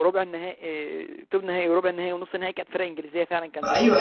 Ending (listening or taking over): taking over